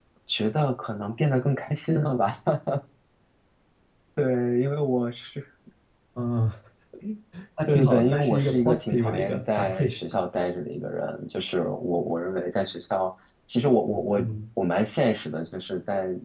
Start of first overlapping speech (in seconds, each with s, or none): 7.7 s